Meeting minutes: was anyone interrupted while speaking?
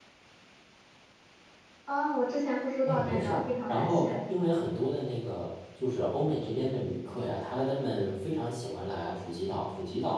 Yes, from 2.9 s

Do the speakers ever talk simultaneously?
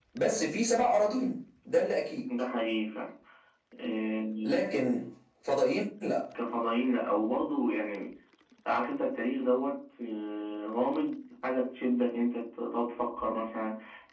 No

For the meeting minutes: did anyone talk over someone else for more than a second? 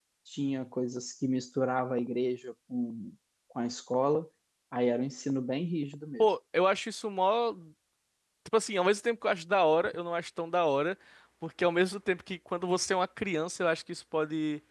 No

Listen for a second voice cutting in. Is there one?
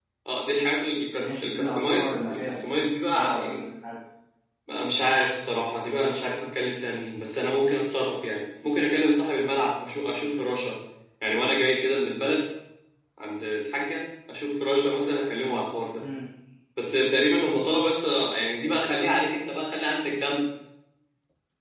Yes, from 1.4 s

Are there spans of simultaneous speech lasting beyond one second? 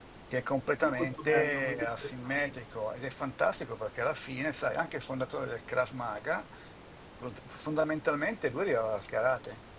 Yes, from 0.8 s

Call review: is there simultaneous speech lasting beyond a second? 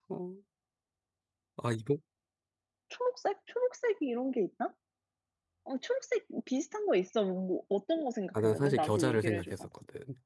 Yes, from 8.3 s

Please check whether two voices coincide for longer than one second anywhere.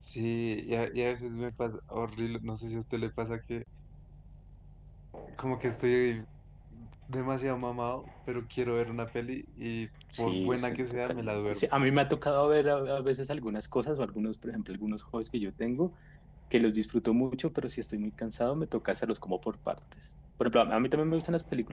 Yes, from 10.1 s

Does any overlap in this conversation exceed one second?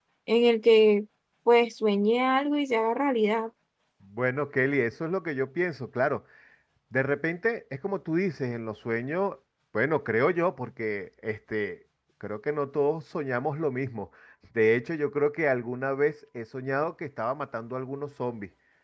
No

